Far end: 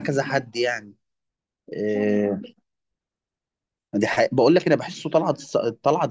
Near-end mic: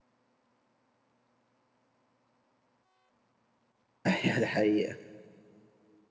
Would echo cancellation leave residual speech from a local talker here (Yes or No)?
Yes